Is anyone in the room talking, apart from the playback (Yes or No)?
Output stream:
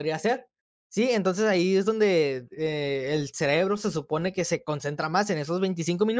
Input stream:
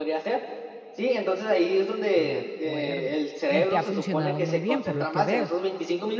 Yes